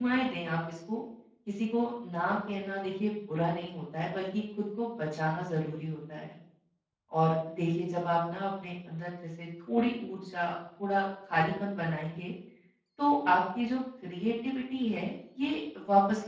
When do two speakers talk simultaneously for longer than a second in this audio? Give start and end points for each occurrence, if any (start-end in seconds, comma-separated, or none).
none